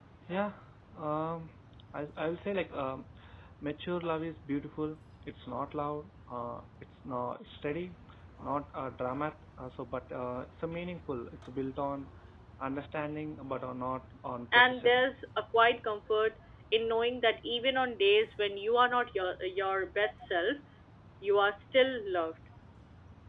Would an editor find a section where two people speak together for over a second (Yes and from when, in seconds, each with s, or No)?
No